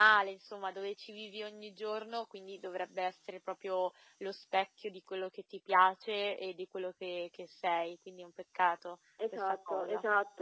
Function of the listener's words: taking over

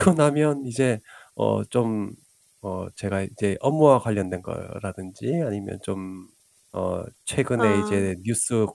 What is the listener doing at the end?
listening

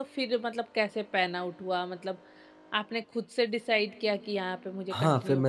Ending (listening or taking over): taking over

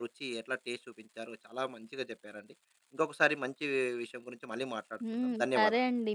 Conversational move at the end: taking over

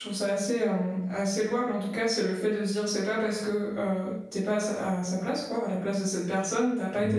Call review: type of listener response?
listening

